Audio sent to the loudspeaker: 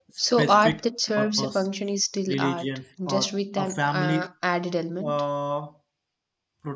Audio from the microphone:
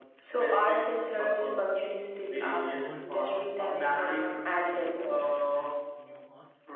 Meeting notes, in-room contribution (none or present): present